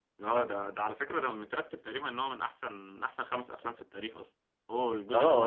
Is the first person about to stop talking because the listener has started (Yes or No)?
Yes